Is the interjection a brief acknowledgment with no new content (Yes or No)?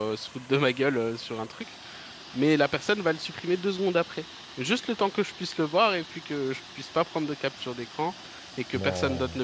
Yes